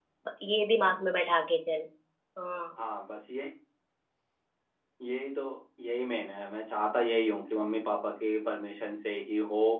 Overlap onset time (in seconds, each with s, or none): none